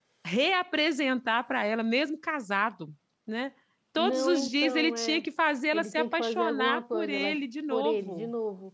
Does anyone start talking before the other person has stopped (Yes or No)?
Yes